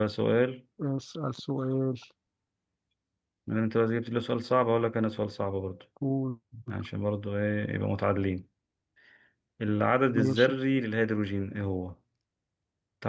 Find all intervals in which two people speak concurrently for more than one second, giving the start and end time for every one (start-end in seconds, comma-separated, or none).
none